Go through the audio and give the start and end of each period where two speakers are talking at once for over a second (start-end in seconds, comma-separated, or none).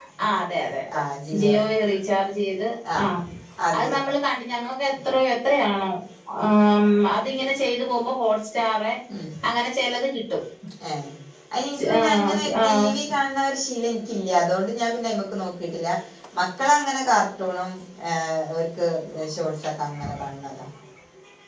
11.8-13.0